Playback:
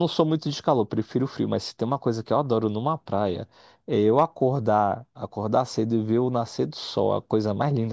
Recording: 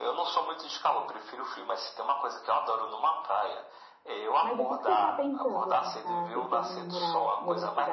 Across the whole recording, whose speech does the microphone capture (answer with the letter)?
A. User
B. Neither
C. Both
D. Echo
C